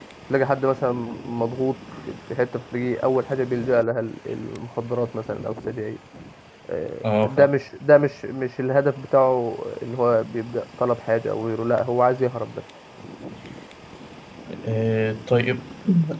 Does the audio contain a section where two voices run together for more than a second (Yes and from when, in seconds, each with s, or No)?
No